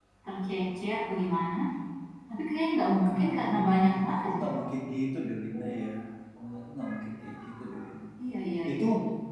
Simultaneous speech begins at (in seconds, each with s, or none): 3.0 s